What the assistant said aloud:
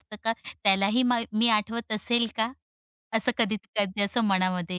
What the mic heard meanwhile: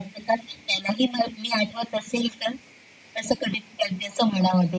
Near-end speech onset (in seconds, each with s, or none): none